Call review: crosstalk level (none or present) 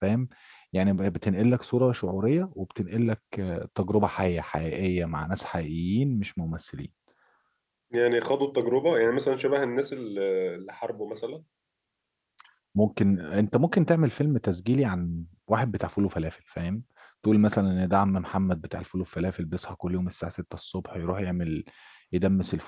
none